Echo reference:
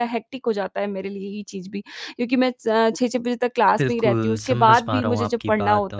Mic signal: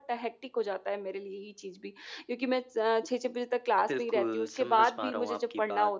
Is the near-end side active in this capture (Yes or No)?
No